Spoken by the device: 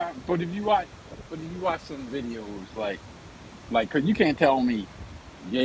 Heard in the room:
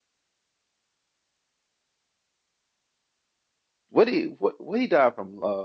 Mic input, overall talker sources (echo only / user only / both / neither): user only